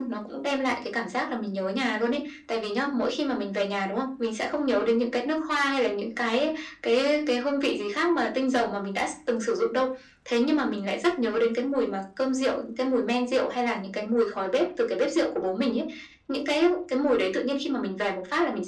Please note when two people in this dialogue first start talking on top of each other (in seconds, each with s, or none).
none